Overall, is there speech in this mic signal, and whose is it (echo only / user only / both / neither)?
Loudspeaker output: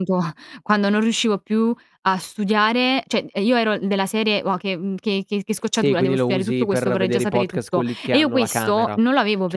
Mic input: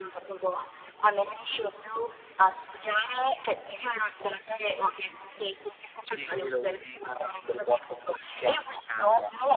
echo only